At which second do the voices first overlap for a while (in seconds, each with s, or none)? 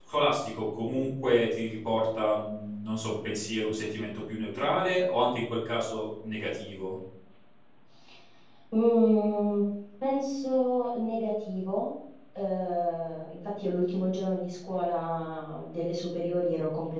none